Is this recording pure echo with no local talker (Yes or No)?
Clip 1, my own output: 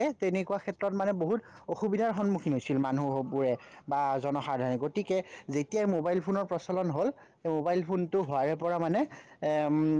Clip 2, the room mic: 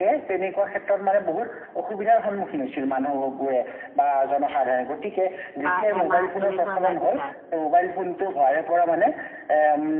No